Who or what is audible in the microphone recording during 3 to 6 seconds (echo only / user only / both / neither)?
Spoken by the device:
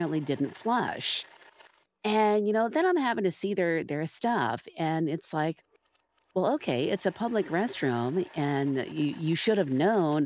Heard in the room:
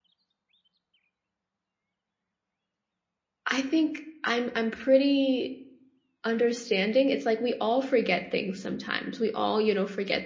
user only